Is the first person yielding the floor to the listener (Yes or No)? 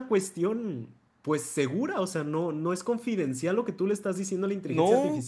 Yes